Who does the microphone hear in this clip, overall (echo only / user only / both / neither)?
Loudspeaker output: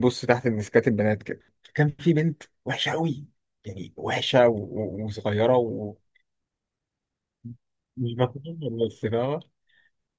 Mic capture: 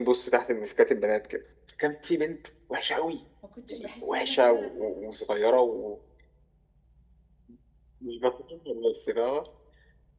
both